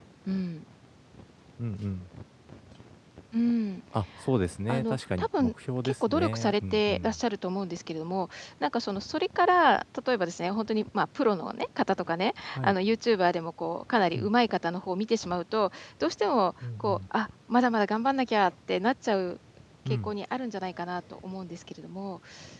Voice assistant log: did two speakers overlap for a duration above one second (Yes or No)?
Yes